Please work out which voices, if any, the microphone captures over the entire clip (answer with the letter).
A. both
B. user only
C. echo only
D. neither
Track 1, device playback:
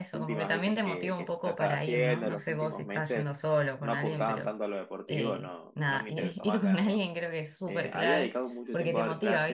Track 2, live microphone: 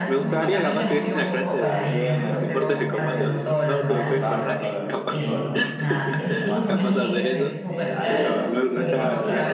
A